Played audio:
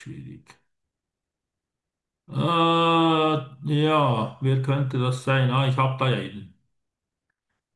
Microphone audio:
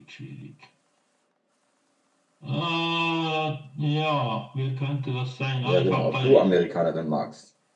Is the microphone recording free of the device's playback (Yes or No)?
No